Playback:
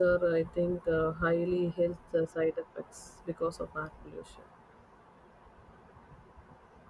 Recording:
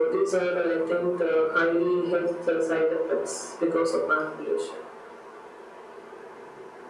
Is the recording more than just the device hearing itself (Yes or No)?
No